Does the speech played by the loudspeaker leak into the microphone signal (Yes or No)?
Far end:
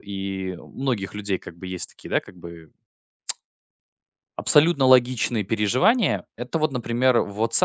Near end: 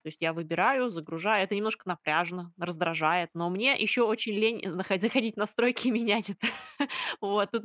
No